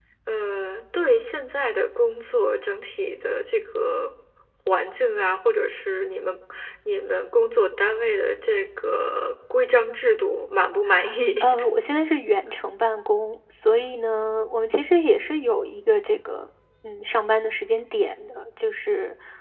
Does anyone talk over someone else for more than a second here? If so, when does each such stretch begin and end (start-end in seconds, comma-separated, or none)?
none